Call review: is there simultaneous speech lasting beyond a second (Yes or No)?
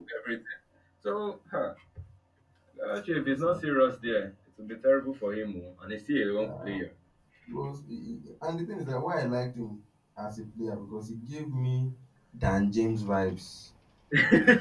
No